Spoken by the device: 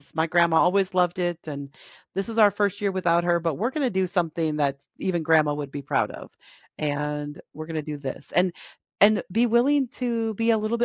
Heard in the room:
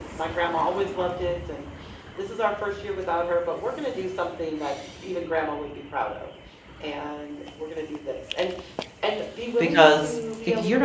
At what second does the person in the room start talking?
9.6 s

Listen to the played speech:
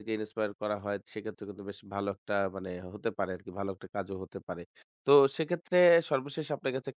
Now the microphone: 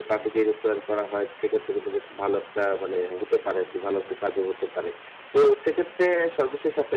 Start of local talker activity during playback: none

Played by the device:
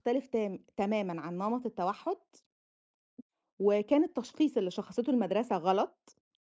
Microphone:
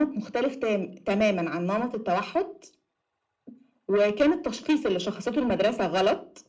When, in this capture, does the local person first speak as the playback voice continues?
none

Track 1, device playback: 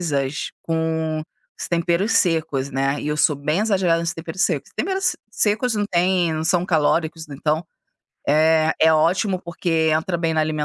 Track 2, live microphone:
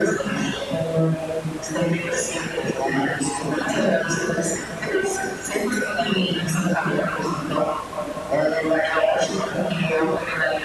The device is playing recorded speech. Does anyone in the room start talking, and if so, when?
none

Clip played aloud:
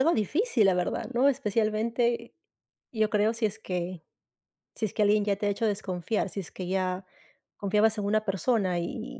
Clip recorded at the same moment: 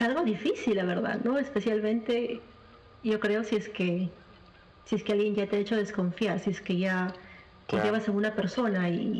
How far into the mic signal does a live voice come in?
7.6 s

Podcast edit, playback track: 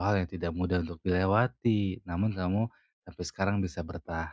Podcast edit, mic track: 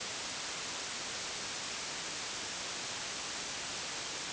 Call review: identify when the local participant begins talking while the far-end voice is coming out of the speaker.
none

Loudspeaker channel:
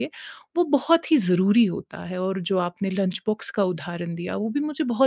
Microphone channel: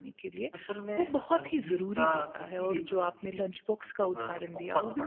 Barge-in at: 0.5 s

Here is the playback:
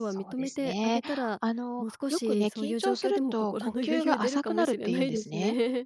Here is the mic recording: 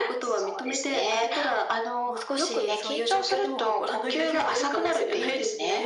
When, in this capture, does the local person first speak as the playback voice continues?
none

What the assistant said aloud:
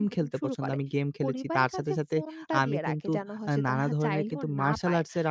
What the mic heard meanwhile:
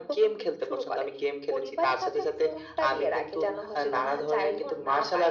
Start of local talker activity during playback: none

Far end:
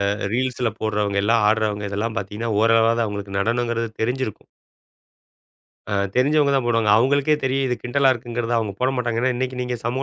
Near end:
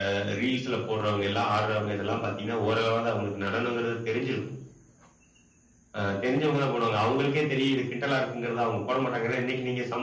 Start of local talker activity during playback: none

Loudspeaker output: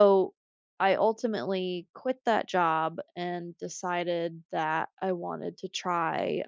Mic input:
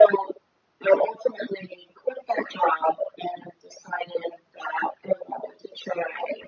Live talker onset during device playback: none

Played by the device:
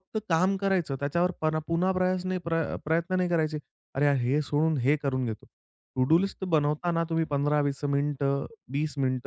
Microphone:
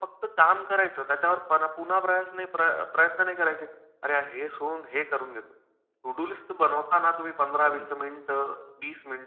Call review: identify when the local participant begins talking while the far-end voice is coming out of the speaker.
7.6 s

